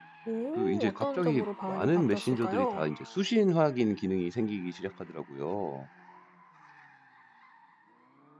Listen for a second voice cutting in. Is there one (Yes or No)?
Yes